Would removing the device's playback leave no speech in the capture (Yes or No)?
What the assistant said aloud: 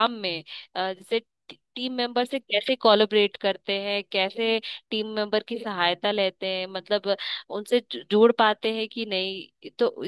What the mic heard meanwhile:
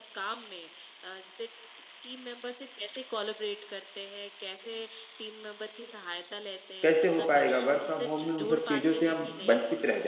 No